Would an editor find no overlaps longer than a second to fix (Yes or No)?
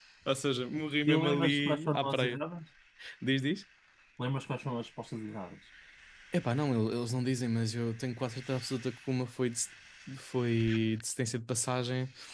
No